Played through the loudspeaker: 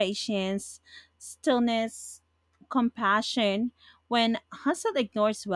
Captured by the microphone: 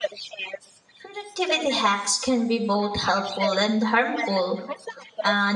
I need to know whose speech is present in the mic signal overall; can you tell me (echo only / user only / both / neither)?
both